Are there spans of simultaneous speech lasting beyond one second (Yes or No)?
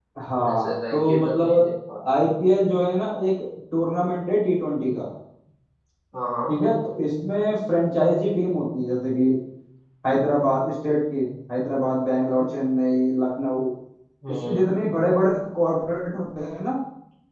Yes